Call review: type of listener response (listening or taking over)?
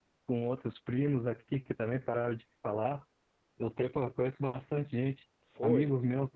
listening